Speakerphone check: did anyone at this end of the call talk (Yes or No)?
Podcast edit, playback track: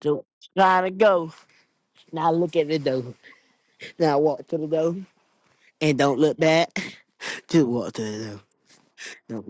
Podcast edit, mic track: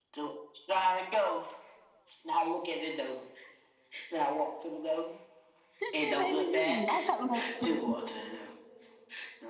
Yes